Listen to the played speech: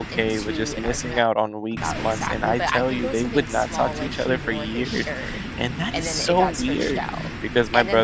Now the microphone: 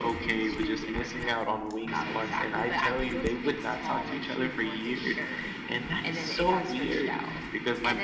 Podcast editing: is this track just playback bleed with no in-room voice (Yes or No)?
Yes